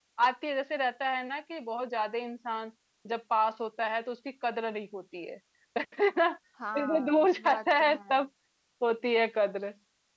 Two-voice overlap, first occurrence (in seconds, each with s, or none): 6.7 s